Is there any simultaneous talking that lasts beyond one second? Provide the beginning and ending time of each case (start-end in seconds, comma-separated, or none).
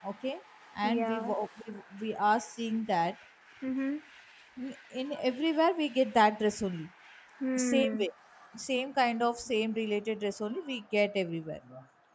none